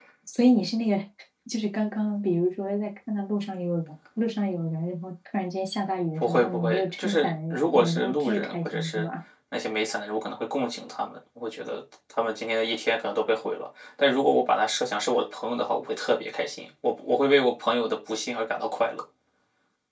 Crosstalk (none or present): present